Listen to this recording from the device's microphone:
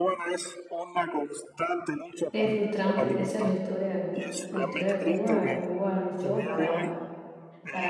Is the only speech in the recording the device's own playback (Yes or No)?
No